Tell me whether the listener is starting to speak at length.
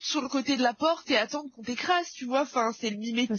No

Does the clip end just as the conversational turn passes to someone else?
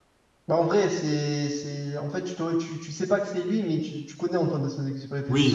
Yes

